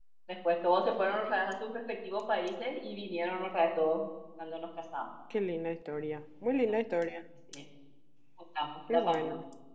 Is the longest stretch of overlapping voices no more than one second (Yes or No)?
Yes